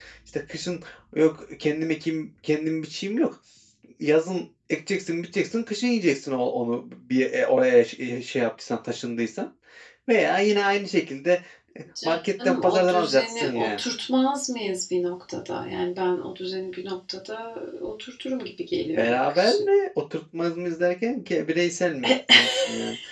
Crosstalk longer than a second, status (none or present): present